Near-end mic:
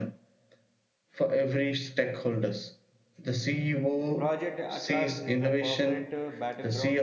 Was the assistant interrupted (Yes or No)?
Yes